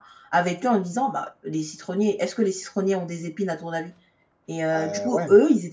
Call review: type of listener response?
listening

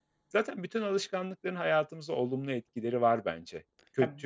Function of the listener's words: taking over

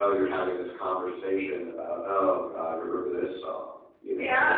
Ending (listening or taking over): taking over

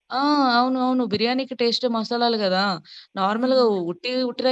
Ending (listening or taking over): listening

